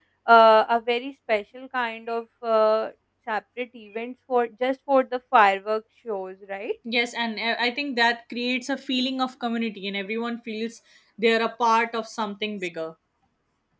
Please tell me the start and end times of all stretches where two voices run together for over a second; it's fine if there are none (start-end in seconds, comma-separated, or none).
none